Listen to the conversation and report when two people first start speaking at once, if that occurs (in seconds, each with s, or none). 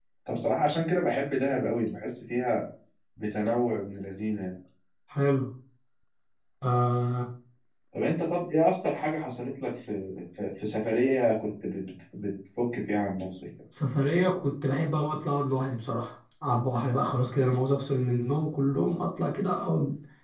none